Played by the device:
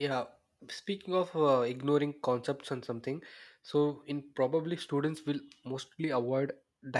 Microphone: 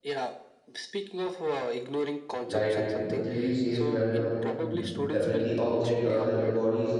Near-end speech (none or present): present